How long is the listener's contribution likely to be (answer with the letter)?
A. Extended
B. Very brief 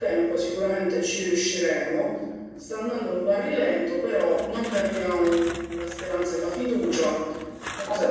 A